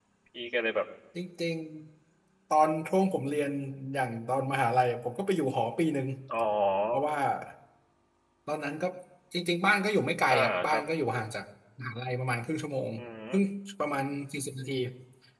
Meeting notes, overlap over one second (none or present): none